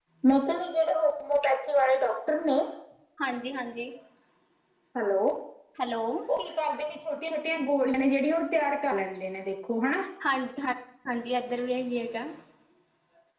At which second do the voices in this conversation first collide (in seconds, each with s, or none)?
none